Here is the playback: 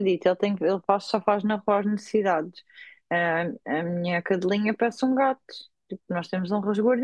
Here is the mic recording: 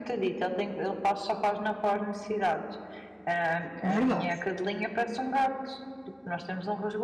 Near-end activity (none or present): present